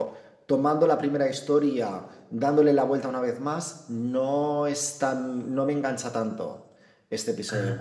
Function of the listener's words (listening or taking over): listening